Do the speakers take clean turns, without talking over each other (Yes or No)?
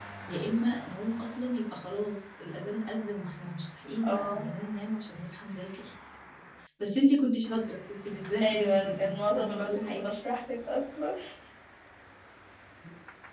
No